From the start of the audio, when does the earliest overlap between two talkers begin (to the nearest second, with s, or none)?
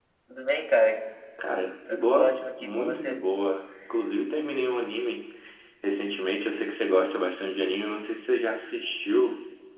2 s